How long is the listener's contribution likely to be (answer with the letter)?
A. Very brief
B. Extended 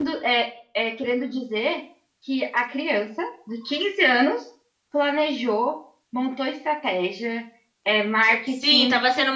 B